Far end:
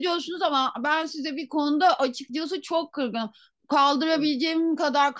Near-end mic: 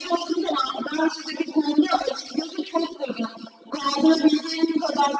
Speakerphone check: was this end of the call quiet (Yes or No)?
Yes